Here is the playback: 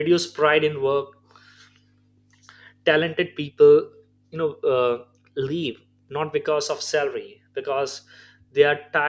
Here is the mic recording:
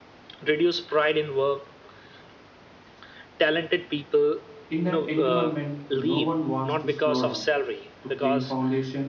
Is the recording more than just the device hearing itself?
Yes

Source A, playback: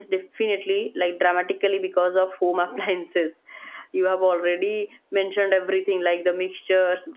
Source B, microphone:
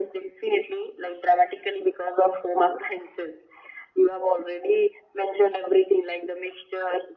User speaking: No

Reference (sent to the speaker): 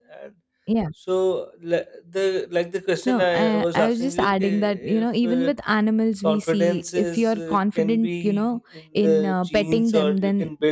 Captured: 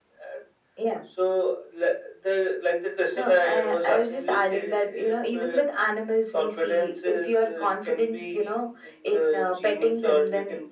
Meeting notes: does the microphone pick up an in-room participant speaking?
No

